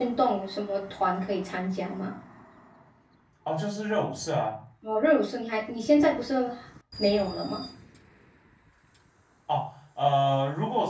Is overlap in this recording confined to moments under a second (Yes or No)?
Yes